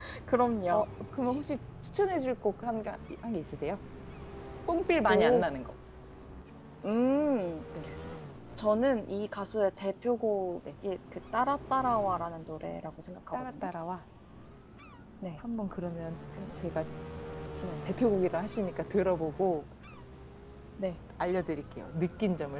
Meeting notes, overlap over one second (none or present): none